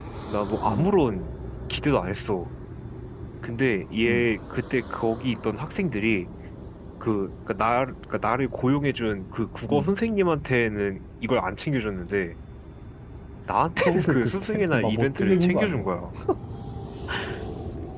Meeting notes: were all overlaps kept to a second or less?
No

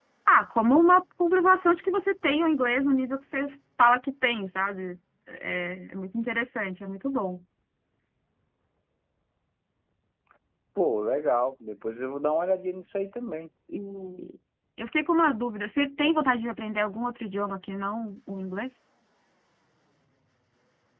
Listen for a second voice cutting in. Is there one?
No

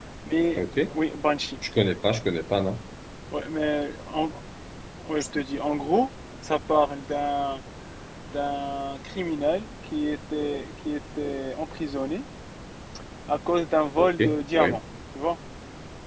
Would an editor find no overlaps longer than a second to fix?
Yes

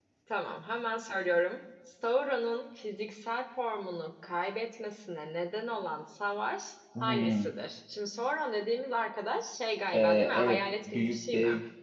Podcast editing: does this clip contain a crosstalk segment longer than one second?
Yes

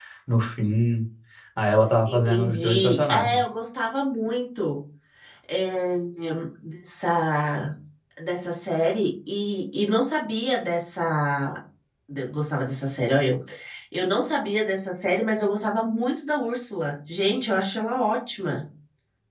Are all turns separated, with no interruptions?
No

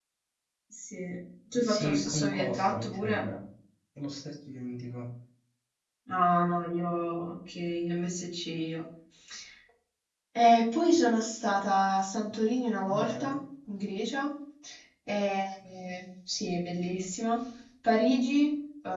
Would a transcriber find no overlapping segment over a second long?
No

